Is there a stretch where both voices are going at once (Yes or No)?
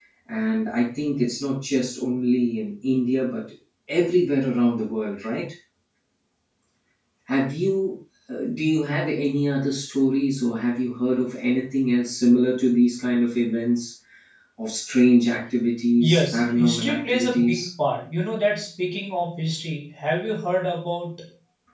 Yes